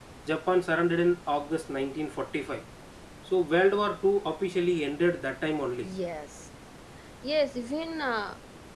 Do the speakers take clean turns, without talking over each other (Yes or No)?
Yes